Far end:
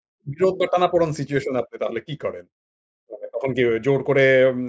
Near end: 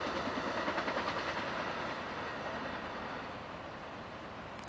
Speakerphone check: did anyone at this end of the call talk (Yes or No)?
No